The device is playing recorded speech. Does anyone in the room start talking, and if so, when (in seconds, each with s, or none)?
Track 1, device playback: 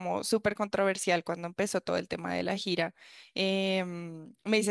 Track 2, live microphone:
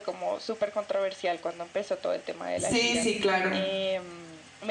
2.5 s